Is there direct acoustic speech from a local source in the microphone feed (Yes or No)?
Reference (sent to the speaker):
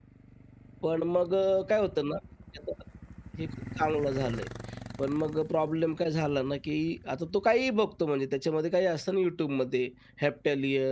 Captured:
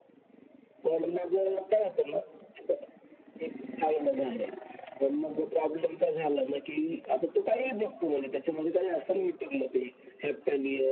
No